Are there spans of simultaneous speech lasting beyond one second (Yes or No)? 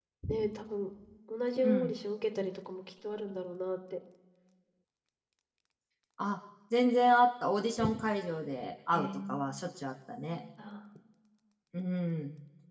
No